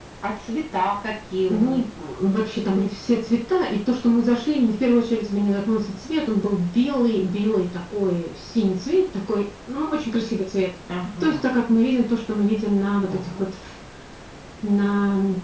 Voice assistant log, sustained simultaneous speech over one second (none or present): none